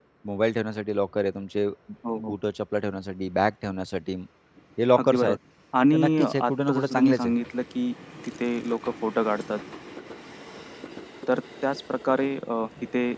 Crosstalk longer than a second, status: present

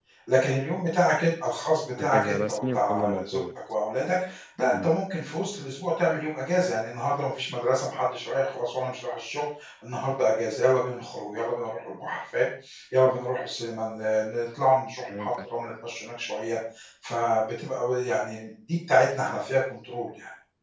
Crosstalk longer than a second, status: present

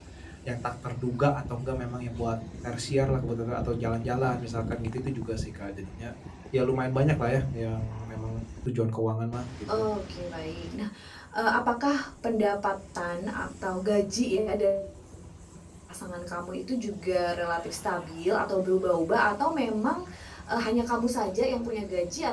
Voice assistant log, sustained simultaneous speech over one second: none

